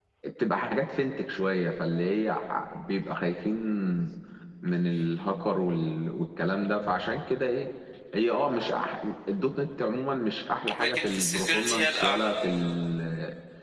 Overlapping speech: Yes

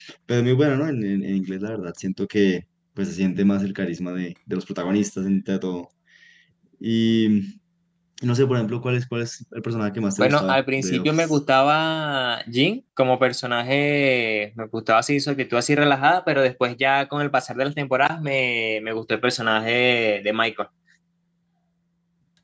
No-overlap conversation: No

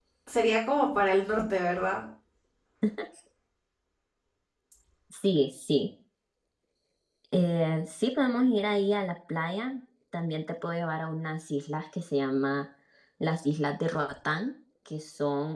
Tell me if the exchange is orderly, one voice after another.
Yes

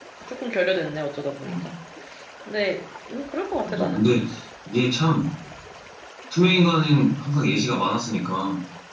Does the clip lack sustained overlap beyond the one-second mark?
Yes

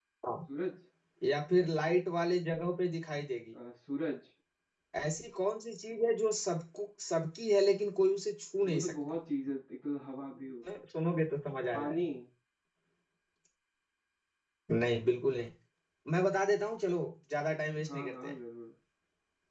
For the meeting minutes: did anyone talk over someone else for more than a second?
No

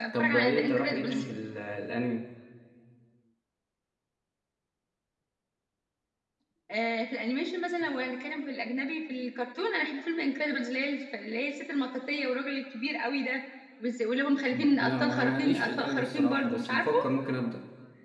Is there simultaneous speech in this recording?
Yes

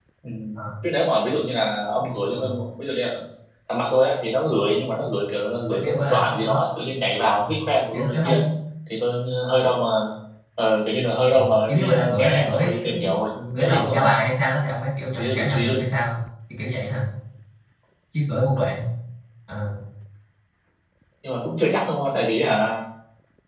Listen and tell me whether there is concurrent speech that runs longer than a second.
Yes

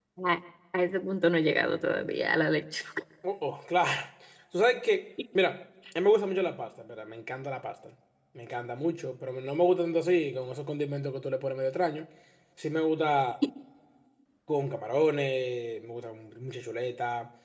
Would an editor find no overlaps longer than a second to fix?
Yes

